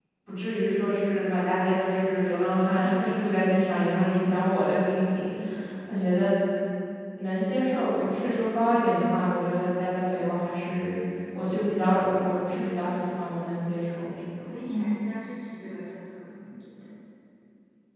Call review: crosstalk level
none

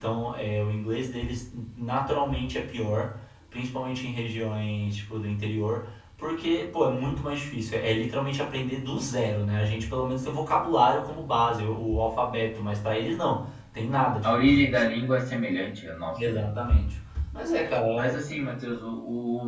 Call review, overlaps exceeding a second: none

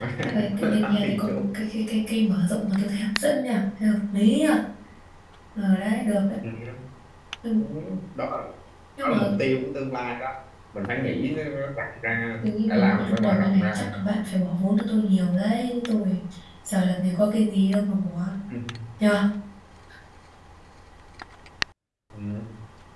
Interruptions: present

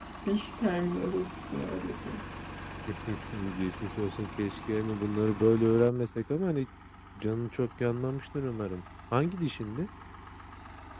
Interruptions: none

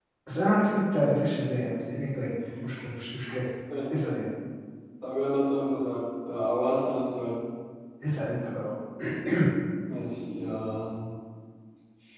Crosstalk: none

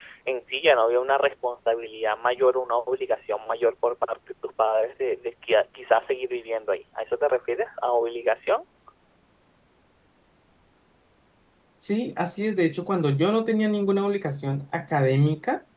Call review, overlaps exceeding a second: none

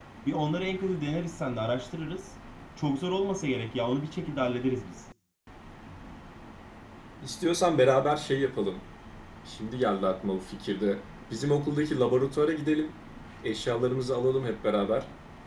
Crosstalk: none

